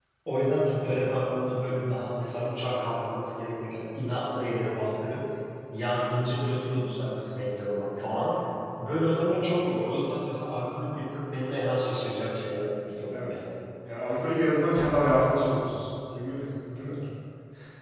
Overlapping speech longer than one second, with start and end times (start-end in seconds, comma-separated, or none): none